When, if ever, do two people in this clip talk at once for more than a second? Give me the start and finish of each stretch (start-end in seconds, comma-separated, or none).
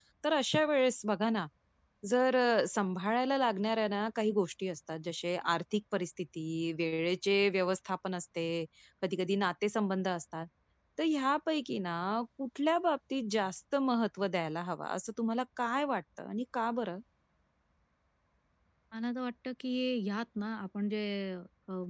none